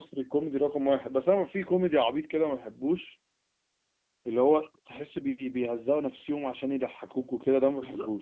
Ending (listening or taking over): taking over